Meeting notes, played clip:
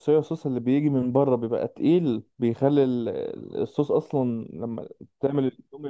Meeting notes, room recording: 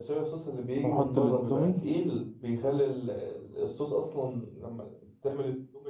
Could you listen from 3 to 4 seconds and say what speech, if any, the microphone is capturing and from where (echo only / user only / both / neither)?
echo only